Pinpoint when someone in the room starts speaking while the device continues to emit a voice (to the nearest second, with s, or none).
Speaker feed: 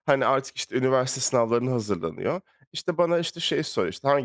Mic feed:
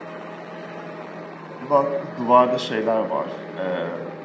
2 s